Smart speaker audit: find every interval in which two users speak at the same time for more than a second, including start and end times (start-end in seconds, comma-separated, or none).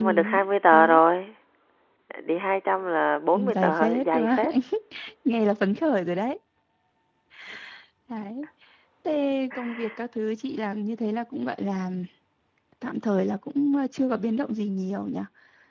3.3-4.5